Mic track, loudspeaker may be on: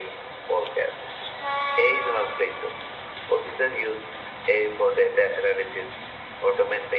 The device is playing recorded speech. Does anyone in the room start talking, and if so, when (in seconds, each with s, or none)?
none